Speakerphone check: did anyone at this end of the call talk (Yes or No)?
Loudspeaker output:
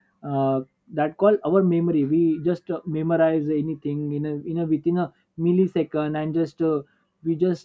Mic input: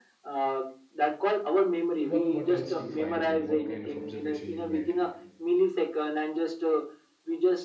Yes